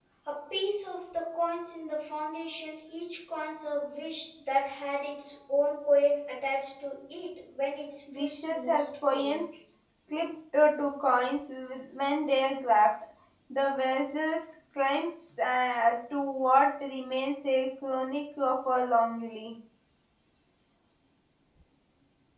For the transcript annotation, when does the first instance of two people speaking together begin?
8.1 s

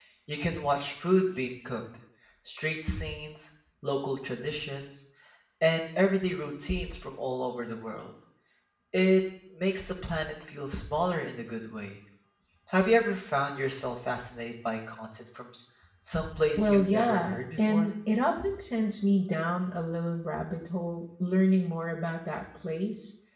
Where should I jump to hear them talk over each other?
16.6 s

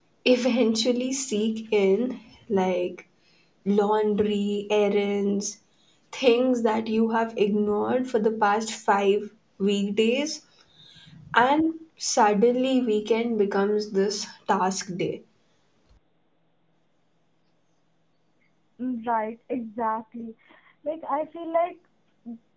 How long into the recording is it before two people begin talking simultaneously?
none

